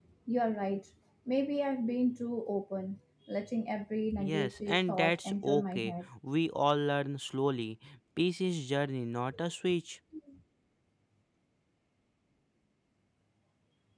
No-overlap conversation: No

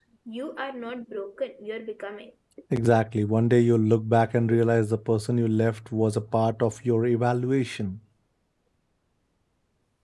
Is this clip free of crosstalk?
Yes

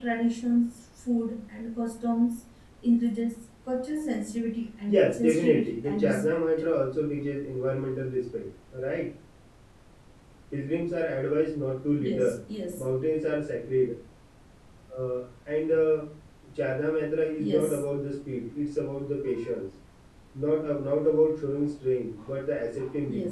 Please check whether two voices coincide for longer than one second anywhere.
Yes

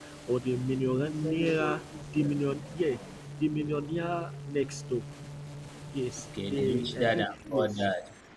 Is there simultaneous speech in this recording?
Yes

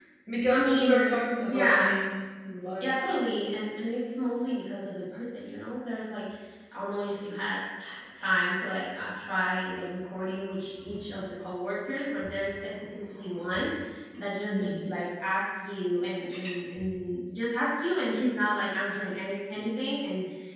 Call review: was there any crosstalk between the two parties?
Yes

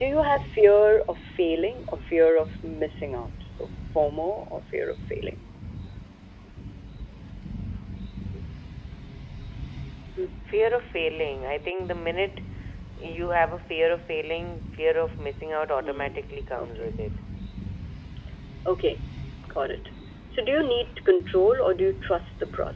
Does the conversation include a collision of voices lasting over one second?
No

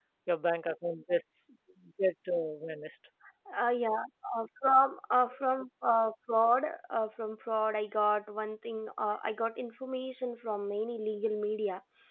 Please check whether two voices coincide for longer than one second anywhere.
No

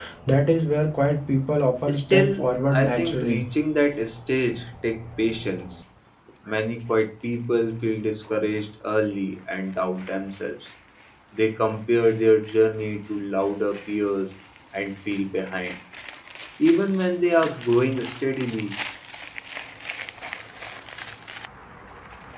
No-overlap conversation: No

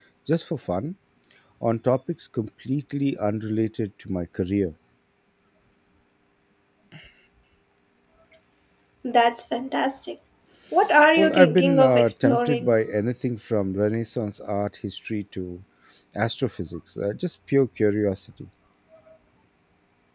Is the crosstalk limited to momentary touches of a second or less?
No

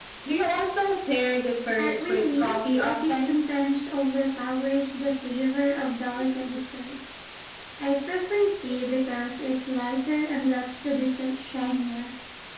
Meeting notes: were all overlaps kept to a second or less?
No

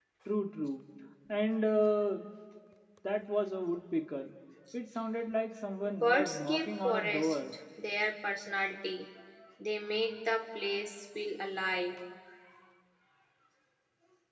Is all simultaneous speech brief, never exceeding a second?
No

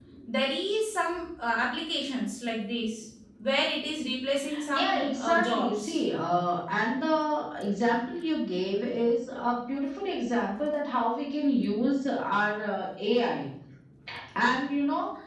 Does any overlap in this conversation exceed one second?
Yes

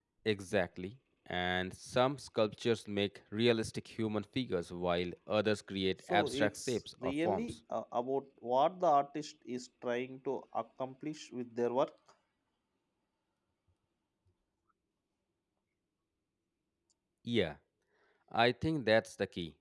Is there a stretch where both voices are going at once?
Yes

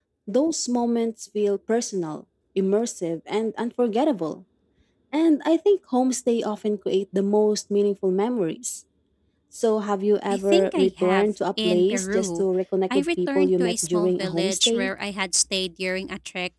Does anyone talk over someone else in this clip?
Yes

